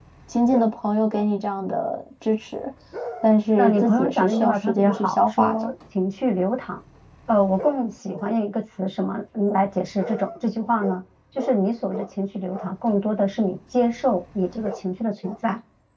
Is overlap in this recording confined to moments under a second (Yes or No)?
No